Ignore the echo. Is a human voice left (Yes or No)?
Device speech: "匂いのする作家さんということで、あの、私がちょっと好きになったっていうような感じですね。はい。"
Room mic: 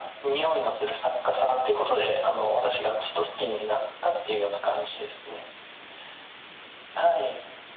No